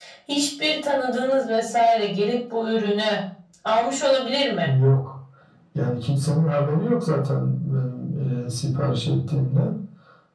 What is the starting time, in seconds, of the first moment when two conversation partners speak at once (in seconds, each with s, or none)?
none